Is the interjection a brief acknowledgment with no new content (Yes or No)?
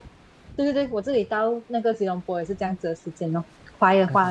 No